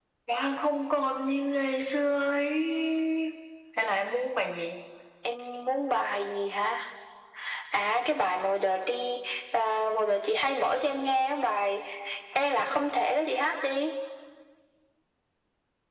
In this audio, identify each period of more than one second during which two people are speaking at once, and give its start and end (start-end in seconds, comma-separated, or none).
none